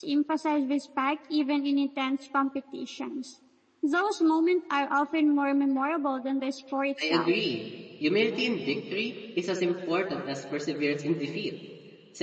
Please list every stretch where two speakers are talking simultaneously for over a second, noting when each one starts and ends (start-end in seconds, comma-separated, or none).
none